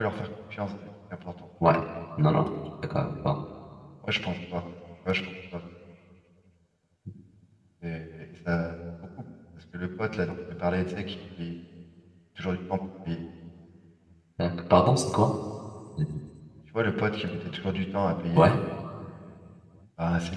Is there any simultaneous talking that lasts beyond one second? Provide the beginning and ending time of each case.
none

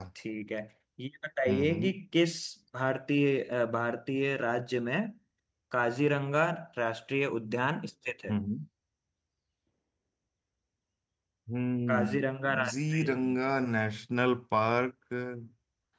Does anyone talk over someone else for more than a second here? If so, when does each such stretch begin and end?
11.9-13.1

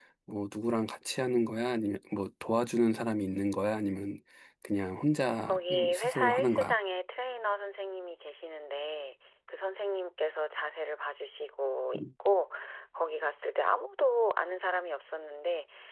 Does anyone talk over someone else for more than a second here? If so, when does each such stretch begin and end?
5.5-6.7

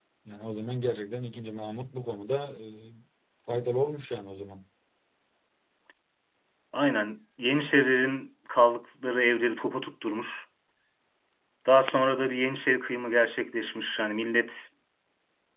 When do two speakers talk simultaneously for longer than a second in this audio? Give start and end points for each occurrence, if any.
none

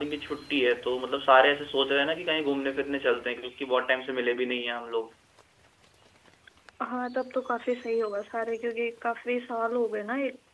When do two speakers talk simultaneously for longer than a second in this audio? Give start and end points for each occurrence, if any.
none

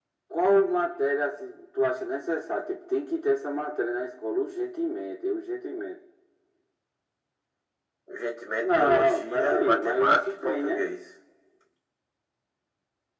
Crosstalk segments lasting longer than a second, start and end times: 8.6-10.9

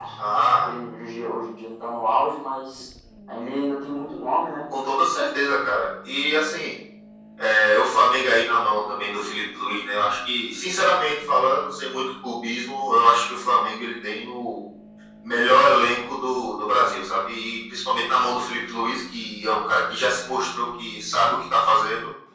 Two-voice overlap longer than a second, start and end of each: none

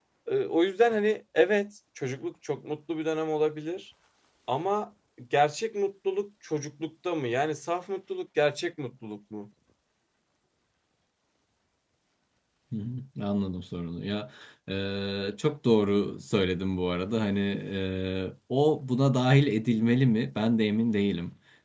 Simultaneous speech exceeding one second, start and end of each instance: none

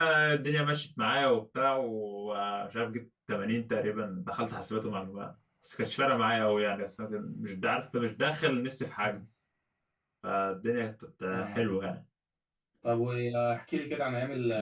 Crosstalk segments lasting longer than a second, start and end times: none

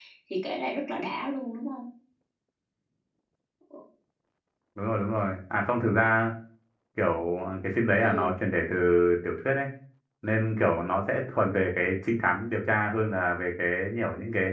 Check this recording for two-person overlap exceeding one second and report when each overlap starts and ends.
none

